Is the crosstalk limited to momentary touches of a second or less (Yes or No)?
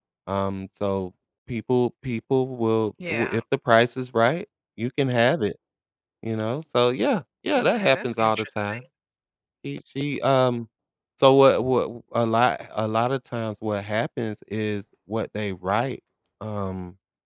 No